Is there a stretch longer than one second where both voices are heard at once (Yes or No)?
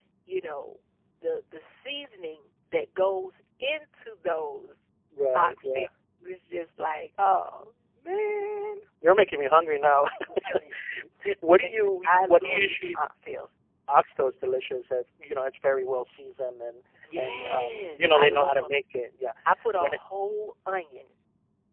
Yes